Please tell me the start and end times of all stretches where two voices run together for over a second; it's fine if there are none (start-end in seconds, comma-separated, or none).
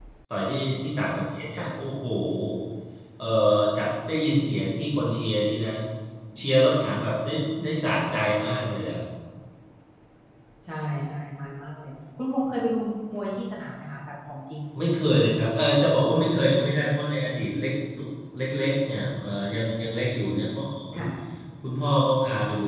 none